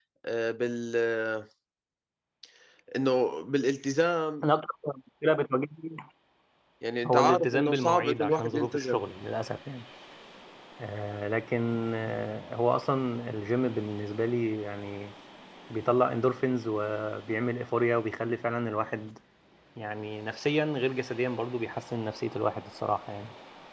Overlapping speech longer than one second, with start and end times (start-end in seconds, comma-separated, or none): 7.1-9.0